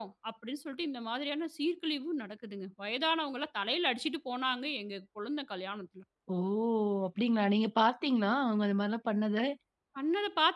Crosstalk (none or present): none